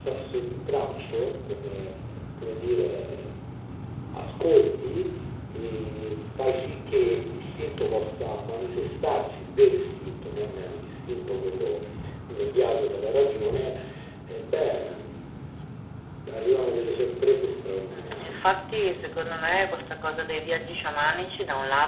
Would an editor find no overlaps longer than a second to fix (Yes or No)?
Yes